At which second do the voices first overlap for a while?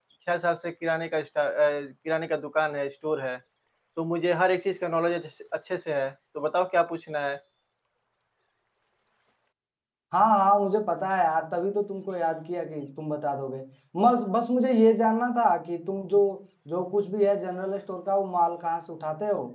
none

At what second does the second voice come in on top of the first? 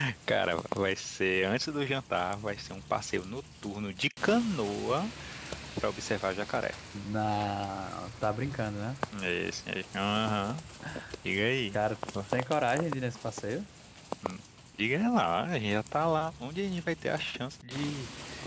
none

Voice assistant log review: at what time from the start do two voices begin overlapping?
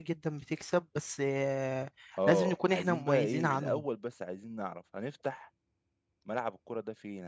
2 s

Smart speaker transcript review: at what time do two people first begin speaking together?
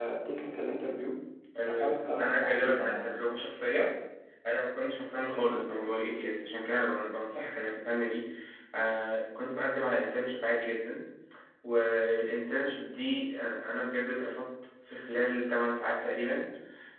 2 s

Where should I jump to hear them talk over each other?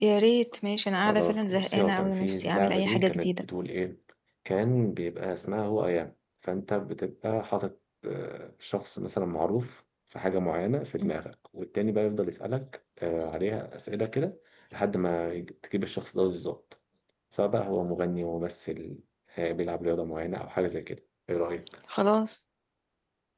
1 s

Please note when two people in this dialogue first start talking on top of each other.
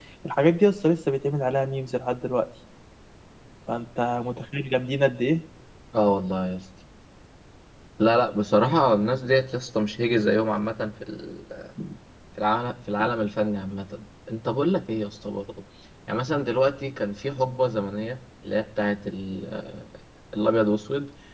none

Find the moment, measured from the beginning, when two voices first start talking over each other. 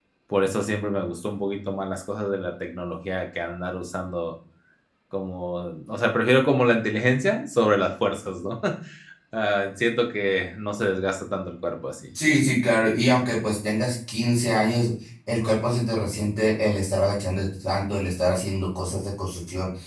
none

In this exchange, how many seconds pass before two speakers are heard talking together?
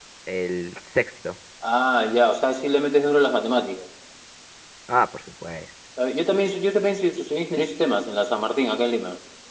none

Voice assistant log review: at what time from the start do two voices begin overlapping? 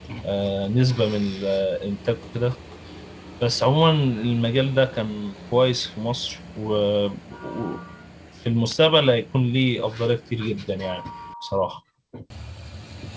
none

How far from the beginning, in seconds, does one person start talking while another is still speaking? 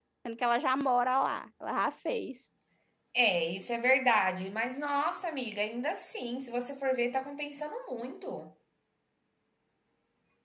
none

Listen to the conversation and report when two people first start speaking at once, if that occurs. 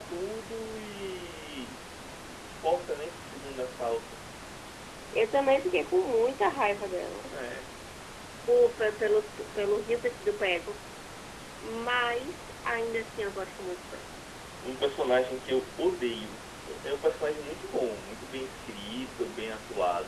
none

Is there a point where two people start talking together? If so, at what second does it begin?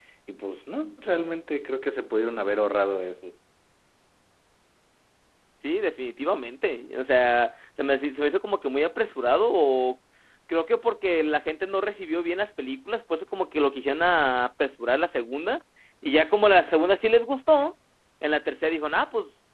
none

